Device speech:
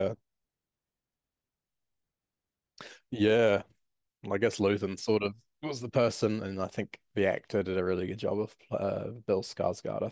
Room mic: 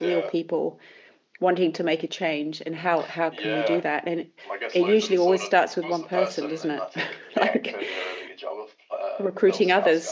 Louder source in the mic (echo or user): user